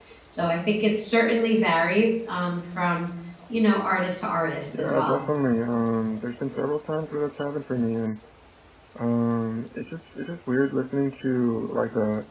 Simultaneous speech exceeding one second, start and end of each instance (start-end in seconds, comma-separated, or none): none